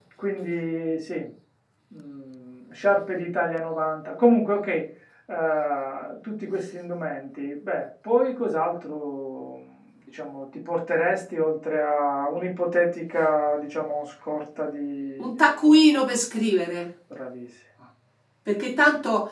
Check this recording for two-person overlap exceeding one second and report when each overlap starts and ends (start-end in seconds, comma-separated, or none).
none